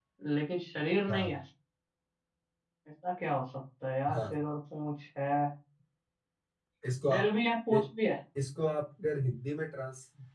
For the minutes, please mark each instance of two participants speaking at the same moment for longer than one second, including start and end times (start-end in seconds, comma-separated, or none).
none